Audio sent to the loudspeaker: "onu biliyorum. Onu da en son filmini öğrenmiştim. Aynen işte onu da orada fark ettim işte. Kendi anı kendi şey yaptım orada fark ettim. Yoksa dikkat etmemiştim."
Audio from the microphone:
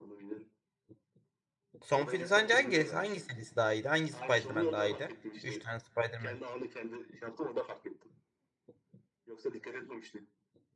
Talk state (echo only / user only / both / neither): both